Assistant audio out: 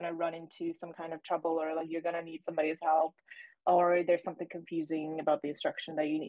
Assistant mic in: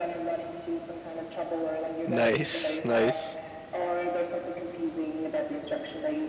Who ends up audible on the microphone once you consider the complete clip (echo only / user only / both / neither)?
both